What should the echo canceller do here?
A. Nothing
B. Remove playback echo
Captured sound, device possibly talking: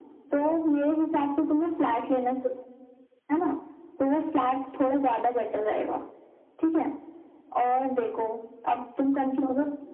B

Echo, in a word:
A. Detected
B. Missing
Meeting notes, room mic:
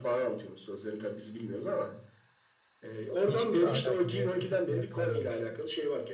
A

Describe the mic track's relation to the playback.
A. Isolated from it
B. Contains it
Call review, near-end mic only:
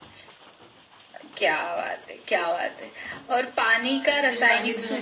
B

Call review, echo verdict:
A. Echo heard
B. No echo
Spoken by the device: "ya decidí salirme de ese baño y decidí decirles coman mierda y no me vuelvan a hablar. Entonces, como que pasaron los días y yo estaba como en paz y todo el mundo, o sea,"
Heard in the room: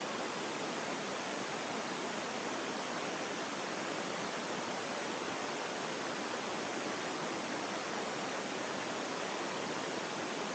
B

